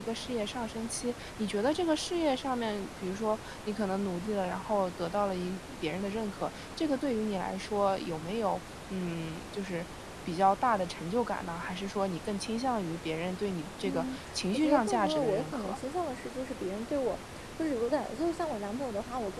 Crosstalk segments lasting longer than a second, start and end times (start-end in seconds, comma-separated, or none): 13.9-15.8